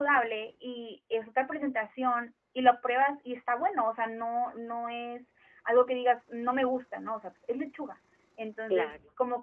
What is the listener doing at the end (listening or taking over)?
listening